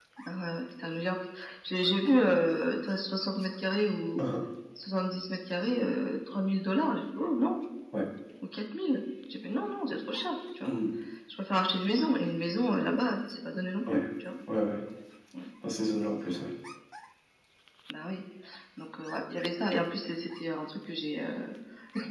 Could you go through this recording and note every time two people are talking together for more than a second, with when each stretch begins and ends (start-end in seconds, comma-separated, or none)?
none